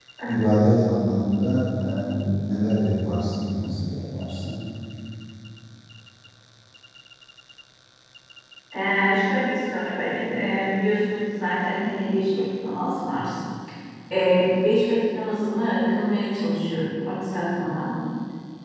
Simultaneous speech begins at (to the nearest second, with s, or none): none